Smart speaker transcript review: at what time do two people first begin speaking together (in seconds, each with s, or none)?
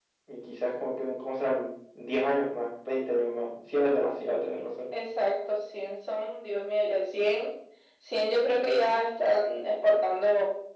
none